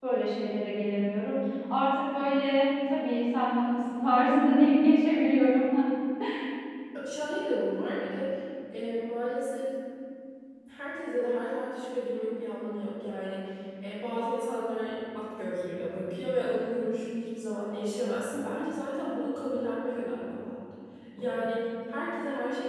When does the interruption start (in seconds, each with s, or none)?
none